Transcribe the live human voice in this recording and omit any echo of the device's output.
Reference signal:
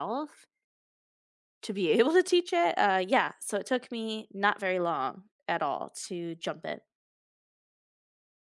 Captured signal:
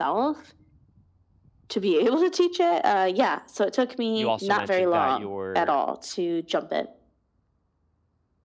You also mentioned that you're

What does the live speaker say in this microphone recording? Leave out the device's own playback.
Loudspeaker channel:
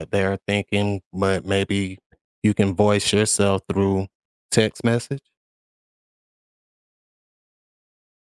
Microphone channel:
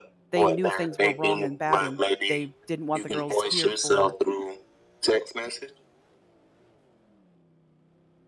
they knew things were wrong and bad and they didn't want the girls here for,

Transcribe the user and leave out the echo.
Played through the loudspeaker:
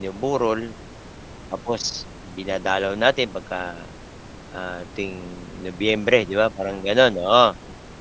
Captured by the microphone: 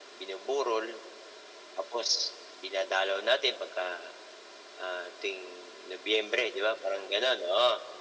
none

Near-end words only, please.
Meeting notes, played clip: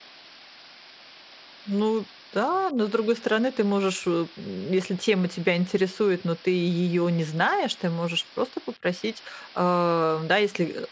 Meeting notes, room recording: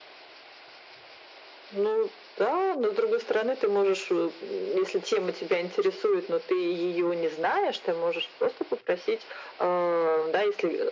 none

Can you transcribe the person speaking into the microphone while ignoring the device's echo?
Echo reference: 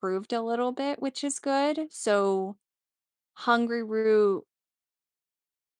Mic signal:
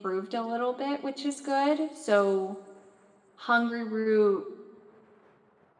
none

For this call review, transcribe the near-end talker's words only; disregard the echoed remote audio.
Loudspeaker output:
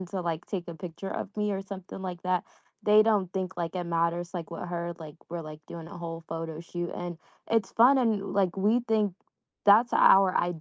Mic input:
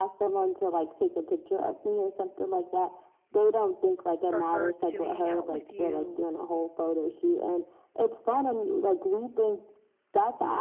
for her to hang out with you

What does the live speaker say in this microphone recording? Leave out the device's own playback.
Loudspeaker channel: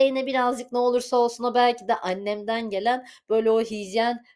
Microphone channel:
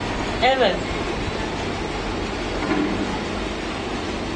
Evet.

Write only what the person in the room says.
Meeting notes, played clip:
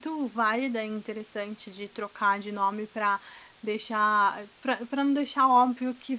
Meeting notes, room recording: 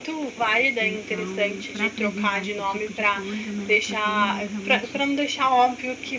Então, para preservar esse tipo de coisa, a melhor coisinha é realmente

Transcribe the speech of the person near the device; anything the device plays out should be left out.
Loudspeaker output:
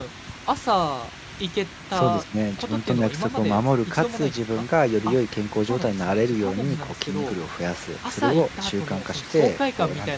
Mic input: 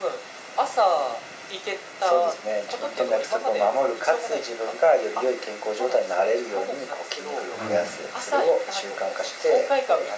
はい。

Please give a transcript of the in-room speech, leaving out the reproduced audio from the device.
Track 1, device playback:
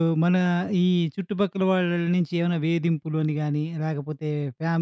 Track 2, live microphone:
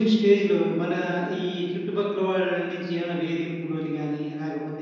none

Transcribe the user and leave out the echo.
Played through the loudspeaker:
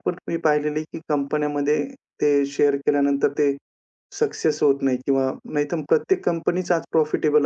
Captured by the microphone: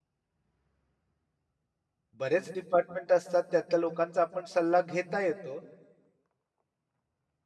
बरेच डिपार्टमेंट असतात त्यातल्या लोकांचा आपण सल्ला घेता येतो.

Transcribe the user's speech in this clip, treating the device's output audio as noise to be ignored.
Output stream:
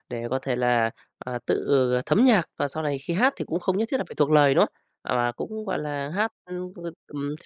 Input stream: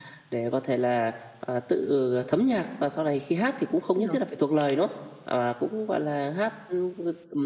Tất nhiên rồi.

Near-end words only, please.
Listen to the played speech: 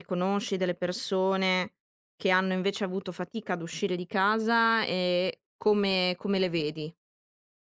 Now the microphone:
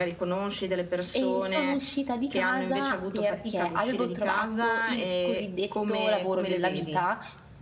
E sono uscita di casa perché avevo trovato il cosiddetto lavoro della vita,

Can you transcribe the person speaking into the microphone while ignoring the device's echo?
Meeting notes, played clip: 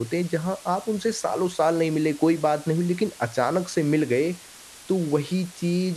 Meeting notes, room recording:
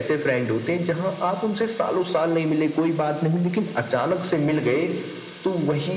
none

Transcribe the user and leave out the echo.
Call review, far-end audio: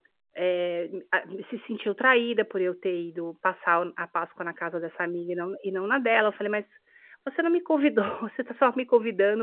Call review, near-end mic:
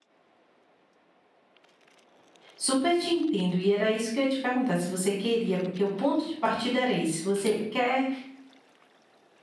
Super te entendo, e era isso que eu ia te perguntar, se você queria, porque o ponto de partida era esse, você quer

